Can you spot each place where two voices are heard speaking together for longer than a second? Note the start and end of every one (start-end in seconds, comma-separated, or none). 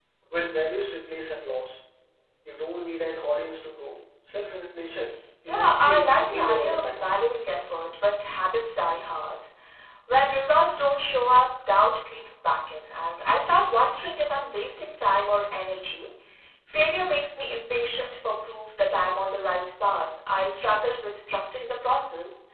5.5-7.1